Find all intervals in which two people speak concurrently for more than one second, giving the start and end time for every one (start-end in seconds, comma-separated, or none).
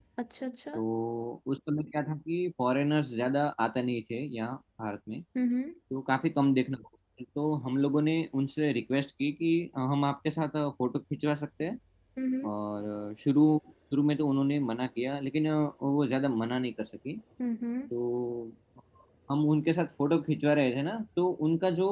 none